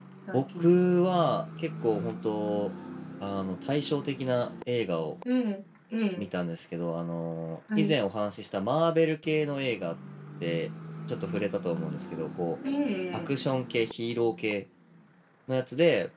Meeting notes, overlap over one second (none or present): none